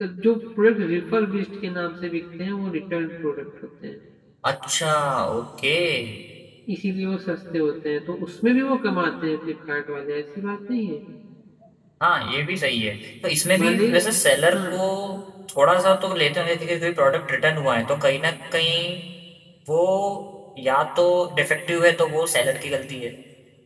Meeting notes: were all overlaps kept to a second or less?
Yes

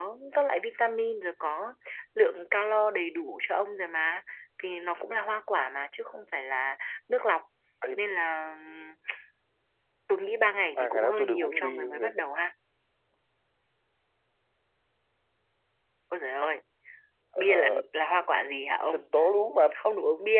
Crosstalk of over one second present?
Yes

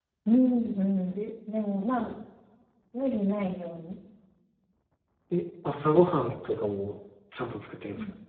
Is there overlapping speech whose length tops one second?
No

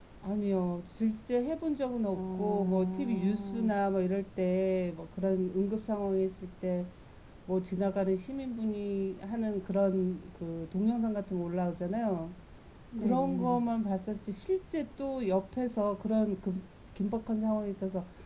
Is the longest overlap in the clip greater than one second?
Yes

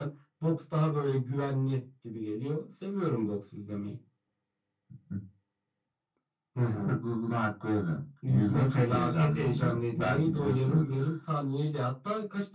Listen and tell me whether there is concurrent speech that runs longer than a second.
Yes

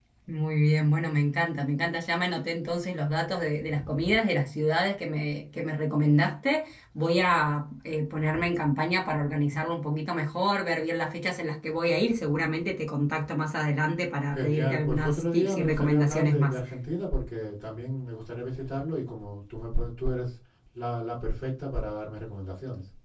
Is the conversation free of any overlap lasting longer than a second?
No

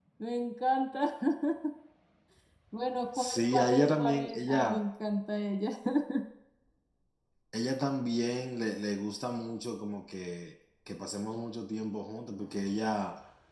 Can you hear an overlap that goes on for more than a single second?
Yes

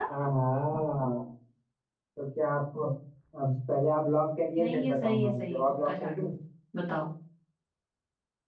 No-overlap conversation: No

